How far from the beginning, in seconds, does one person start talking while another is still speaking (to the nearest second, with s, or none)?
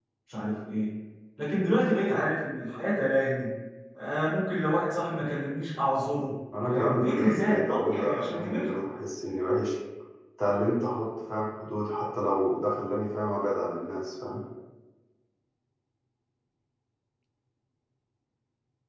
7 s